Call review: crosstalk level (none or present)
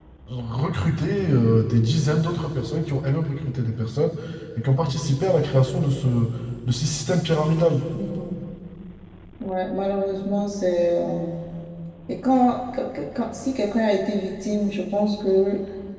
none